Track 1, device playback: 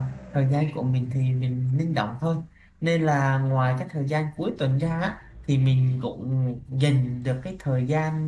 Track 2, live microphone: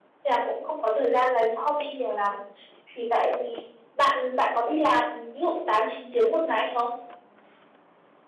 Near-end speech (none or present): present